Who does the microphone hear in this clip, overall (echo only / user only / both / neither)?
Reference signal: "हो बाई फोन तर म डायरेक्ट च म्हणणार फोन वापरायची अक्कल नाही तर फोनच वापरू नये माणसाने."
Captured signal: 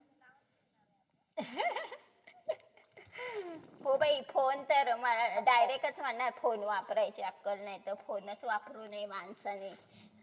echo only